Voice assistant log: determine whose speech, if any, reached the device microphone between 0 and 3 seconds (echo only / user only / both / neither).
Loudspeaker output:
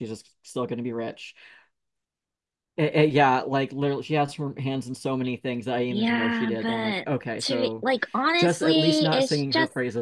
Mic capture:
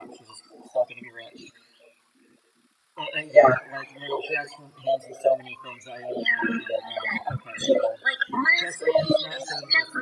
echo only